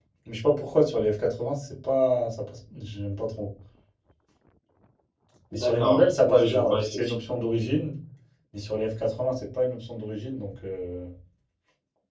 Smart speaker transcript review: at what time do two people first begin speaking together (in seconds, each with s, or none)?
5.5 s